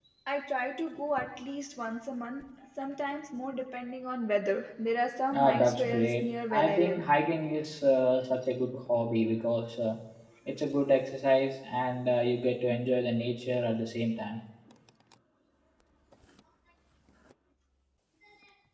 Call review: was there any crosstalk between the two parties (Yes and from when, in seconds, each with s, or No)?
Yes, from 5.3 s